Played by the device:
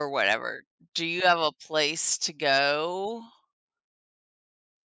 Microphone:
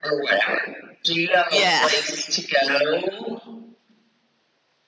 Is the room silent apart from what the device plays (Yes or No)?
No